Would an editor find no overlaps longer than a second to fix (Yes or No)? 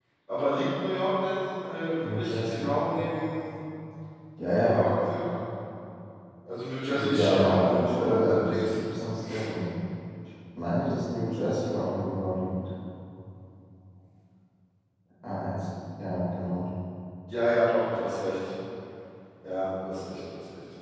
No